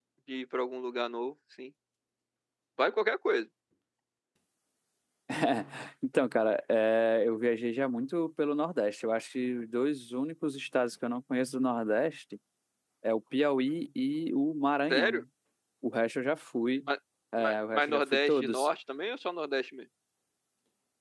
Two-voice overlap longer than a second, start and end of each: 17.4-18.7

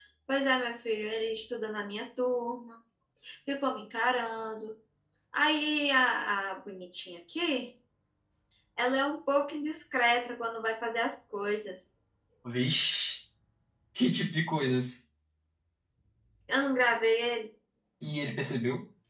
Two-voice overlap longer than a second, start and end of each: none

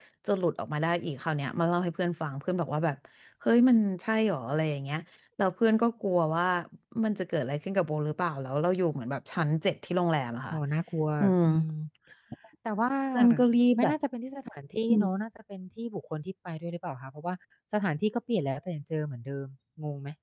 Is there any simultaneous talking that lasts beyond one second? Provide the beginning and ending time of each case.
none

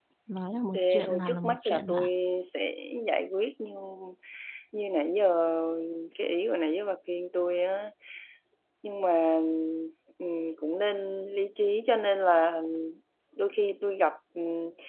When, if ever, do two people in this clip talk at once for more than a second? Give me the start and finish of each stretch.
0.7-2.1

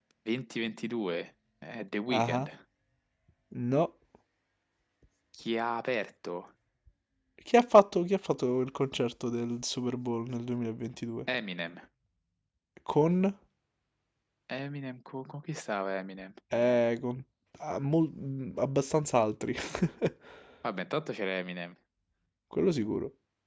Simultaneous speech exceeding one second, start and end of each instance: none

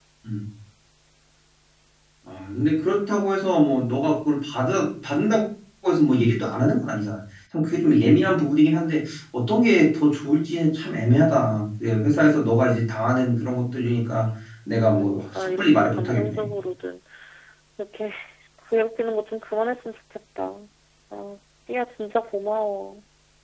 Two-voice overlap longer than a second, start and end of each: 14.9-16.5

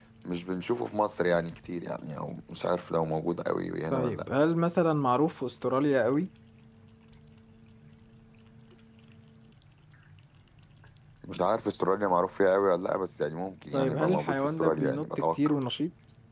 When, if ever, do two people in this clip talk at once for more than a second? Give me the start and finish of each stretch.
13.7-15.6

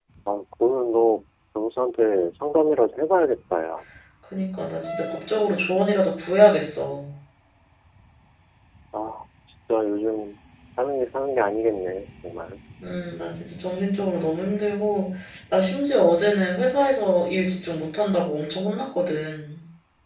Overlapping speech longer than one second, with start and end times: none

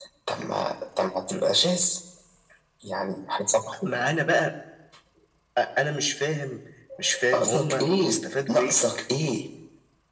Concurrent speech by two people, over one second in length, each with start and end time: 7.3-8.7

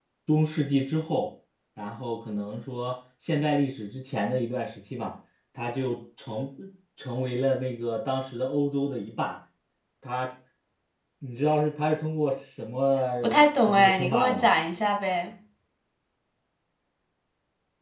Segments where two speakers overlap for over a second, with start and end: 13.2-14.5

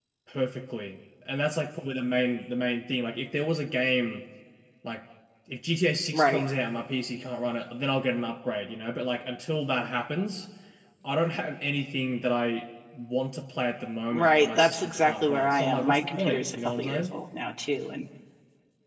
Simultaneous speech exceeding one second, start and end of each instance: 14.1-17.0

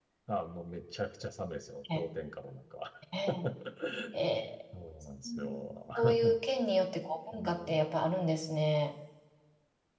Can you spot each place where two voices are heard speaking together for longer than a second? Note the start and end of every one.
none

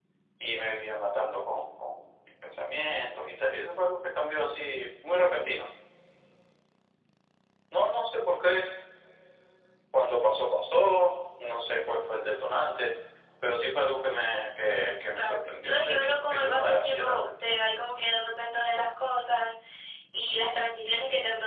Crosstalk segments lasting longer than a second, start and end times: 15.2-17.3

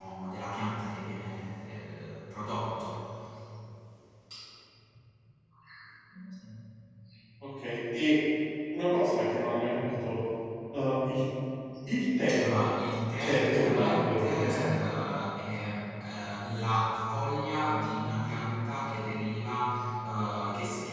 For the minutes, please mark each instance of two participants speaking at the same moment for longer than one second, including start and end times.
13.2-14.6

